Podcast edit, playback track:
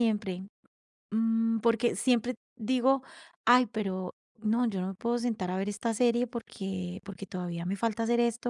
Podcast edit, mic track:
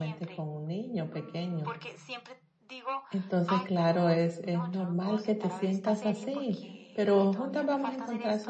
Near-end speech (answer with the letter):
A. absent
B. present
B